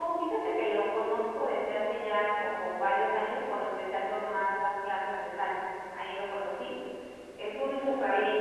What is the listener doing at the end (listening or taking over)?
listening